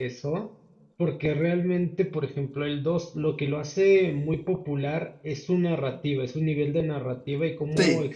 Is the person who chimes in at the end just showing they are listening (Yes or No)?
Yes